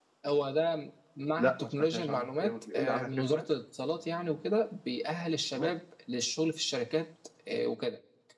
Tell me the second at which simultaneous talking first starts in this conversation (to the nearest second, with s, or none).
1 s